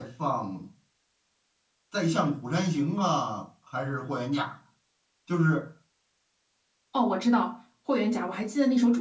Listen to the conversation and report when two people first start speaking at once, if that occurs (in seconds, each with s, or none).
none